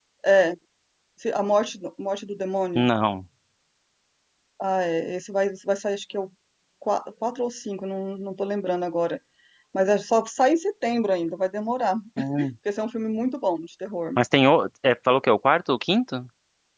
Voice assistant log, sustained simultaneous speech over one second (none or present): none